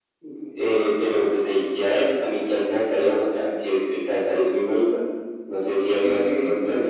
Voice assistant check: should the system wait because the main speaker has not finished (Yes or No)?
No